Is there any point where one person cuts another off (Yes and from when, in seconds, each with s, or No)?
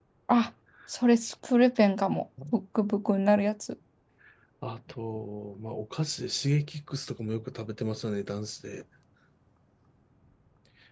No